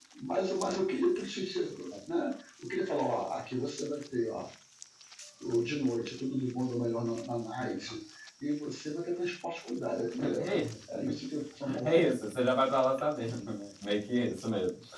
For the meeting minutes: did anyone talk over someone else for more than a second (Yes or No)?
No